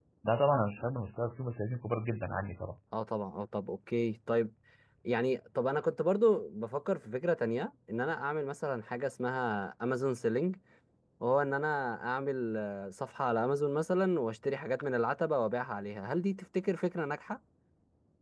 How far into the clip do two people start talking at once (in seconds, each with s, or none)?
none